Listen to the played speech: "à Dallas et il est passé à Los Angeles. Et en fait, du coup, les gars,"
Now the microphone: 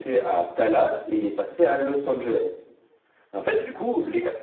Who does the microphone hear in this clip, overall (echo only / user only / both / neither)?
echo only